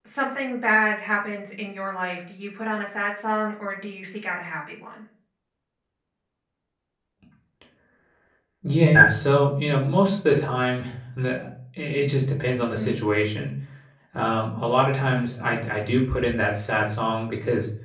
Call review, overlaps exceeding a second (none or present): none